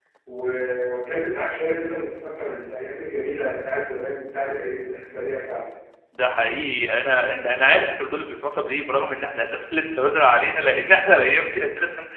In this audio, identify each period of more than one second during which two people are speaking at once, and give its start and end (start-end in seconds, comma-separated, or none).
none